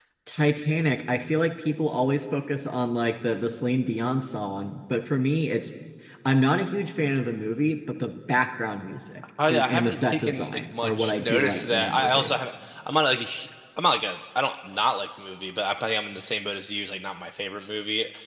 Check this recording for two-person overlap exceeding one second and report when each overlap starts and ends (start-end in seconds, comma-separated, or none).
9.5-12.4